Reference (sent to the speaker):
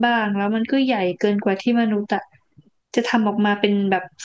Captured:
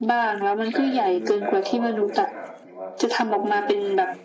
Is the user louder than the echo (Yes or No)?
No